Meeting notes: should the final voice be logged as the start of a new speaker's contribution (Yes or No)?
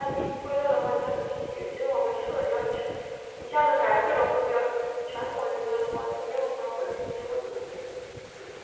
Yes